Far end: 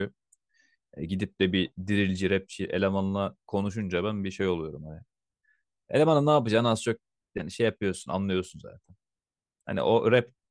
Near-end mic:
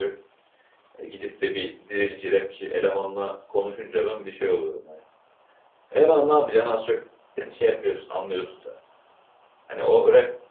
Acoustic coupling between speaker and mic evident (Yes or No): Yes